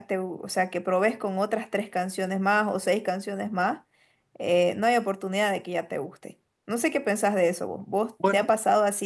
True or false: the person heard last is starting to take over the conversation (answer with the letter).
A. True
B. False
B